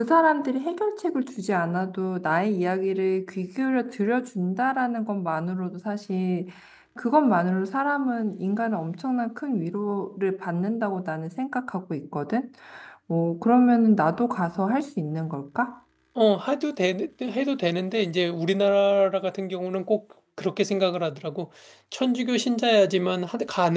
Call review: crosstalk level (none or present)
none